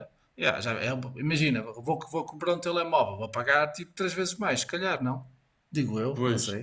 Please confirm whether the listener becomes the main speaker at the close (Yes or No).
Yes